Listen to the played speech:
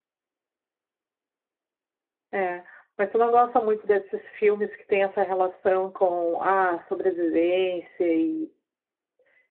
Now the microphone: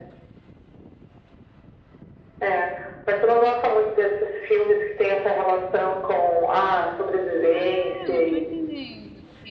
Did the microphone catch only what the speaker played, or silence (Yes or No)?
No